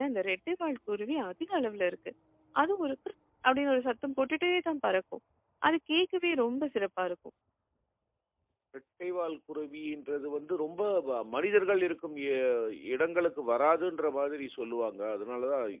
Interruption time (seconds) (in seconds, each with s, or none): none